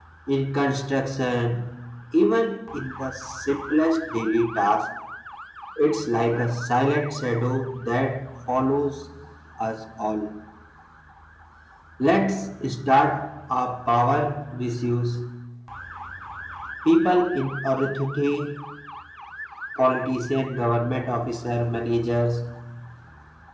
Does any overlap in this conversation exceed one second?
No

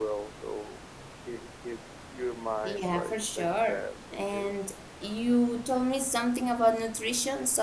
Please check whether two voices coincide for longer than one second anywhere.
Yes, from 2.6 s

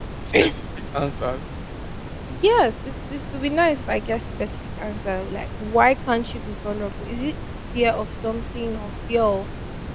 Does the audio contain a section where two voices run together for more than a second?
No

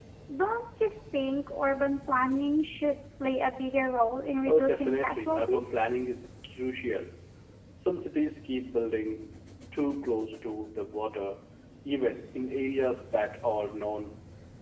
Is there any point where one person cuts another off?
Yes, from 4.4 s

